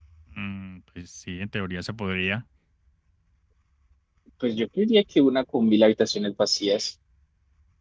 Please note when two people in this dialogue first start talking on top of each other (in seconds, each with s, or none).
none